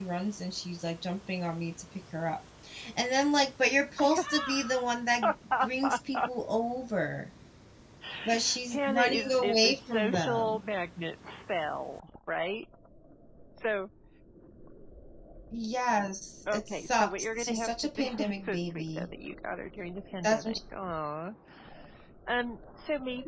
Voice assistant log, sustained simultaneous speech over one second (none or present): present